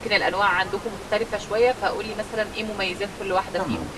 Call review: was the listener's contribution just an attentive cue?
No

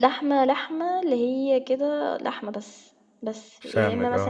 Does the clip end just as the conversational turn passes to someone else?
No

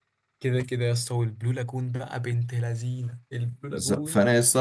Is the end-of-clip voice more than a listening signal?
Yes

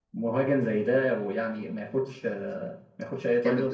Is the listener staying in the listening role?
No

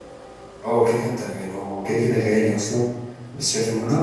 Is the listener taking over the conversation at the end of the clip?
No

